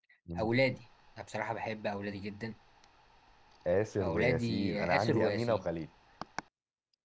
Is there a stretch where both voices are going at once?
Yes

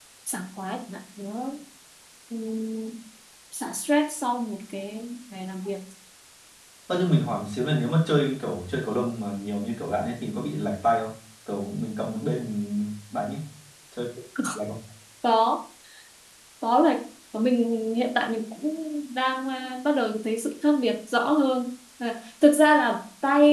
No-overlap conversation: Yes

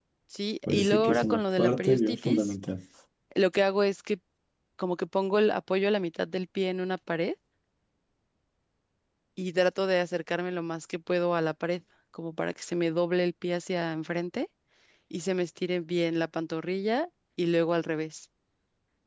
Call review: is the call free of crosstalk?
No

